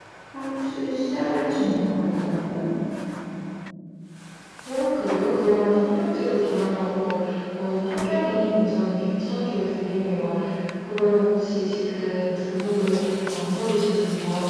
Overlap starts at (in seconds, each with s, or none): none